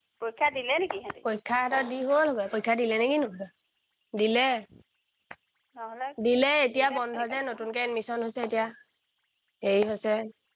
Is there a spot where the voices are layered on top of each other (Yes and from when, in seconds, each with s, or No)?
Yes, from 6.8 s